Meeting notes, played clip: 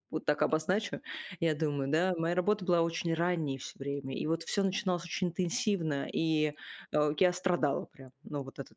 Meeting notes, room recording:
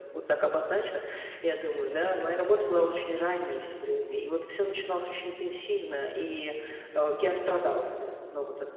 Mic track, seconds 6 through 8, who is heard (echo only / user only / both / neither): echo only